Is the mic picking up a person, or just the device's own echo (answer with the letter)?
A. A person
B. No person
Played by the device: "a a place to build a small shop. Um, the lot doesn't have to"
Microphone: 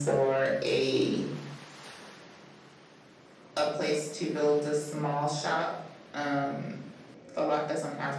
B